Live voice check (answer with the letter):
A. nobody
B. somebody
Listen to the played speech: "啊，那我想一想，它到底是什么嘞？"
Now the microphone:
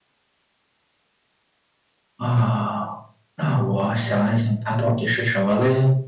A